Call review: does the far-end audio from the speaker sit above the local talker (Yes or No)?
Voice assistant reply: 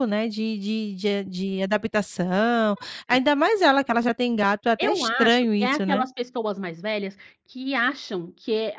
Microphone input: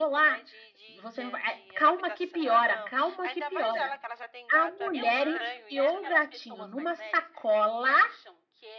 No